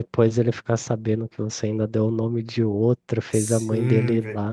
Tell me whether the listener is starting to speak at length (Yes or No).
Yes